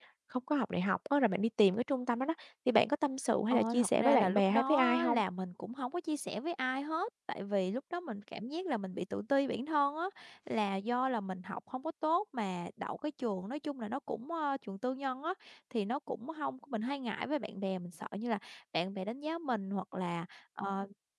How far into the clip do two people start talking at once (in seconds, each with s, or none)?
3.5 s